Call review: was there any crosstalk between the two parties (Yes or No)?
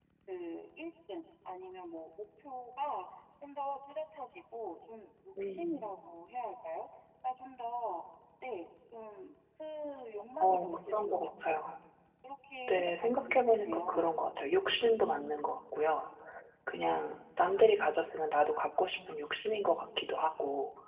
Yes